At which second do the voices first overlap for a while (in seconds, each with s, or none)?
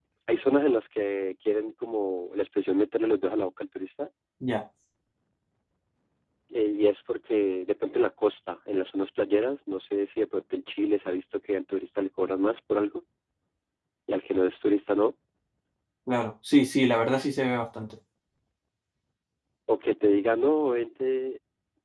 none